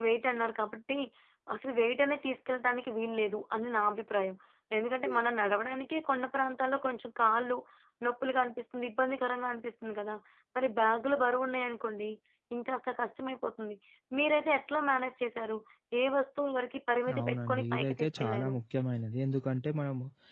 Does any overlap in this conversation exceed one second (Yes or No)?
Yes